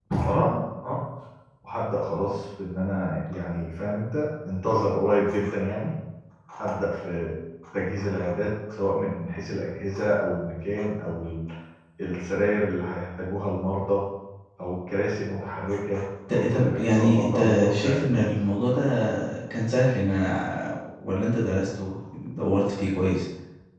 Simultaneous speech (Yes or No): Yes